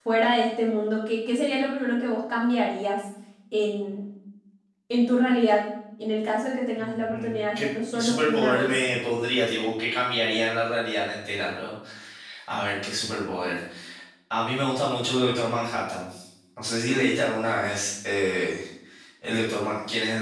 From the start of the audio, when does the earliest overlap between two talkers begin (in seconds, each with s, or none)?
6.8 s